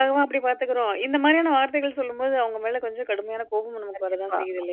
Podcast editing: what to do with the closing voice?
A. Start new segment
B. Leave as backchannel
A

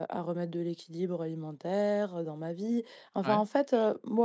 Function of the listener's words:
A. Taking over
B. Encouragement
B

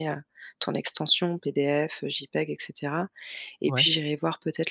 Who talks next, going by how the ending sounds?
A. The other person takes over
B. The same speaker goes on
B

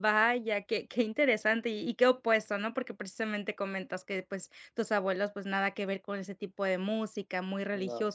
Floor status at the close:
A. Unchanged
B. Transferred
A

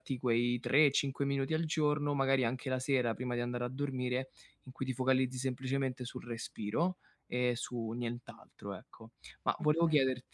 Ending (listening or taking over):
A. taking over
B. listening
B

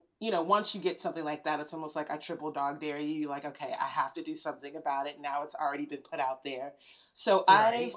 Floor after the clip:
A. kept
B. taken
A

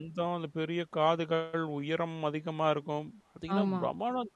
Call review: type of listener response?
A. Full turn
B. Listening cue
B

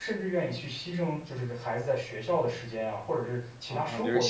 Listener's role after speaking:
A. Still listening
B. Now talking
B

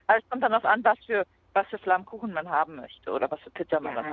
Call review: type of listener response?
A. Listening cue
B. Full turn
B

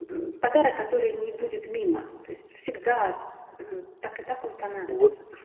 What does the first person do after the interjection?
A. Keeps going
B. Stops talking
B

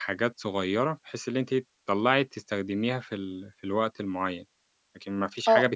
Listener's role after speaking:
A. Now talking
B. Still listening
A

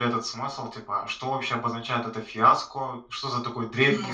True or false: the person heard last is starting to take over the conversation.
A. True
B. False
B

